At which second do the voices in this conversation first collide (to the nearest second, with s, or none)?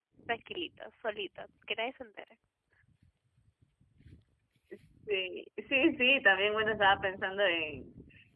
none